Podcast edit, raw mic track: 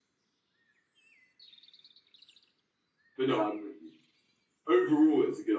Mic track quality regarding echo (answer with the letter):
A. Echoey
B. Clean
B